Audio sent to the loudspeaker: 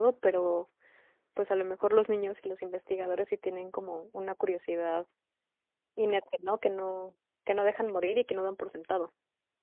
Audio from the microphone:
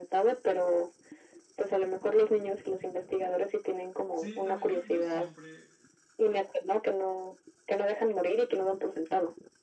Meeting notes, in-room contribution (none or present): present